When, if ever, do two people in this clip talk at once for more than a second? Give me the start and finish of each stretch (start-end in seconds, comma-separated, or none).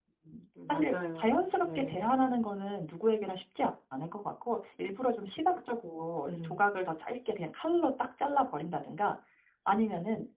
0.7-2.4